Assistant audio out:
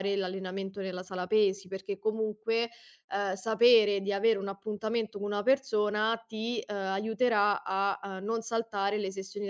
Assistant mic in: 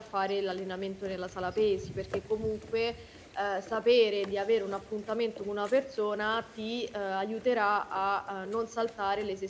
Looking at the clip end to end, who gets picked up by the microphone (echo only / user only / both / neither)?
echo only